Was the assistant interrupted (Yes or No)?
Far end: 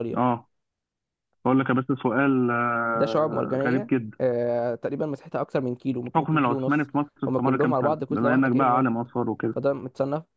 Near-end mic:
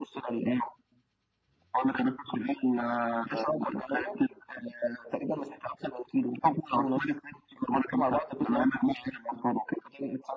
No